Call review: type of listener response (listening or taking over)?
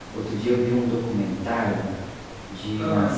listening